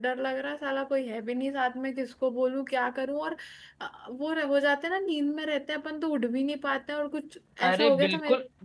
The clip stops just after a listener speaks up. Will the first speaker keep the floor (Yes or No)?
No